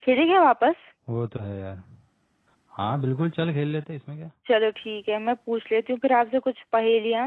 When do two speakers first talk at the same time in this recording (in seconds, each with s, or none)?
none